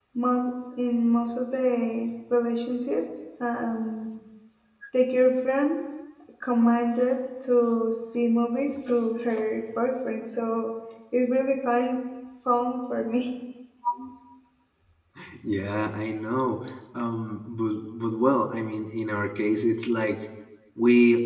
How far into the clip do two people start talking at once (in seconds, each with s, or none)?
none